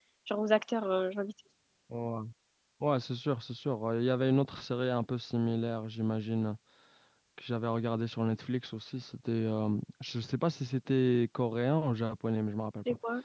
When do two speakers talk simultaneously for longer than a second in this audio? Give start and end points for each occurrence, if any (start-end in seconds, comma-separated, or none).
none